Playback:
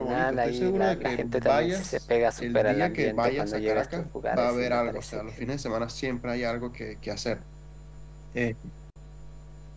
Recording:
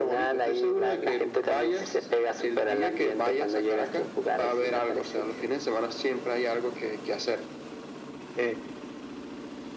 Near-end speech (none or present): none